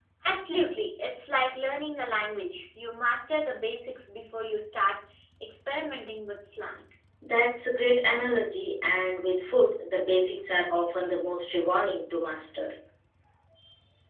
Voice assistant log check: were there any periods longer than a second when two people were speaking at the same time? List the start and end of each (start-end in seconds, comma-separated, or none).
none